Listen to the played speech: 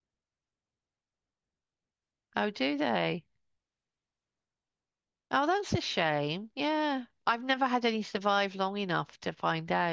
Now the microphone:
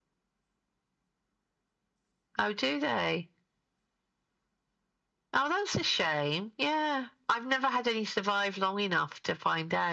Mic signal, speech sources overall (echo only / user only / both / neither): echo only